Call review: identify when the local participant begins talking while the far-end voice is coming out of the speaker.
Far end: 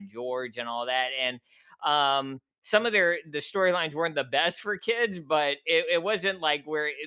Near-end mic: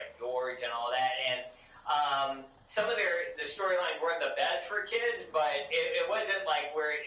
none

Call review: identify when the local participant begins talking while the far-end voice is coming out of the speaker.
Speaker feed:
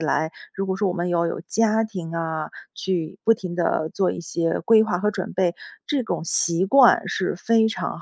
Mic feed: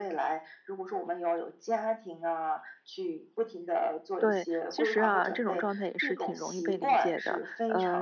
4.2 s

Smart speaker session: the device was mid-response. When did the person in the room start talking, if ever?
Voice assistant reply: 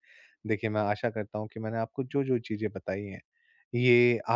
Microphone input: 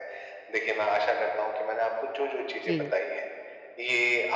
2.6 s

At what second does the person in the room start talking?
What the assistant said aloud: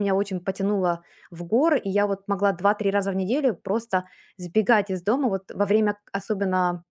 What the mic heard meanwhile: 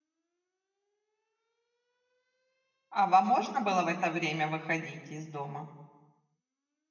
2.9 s

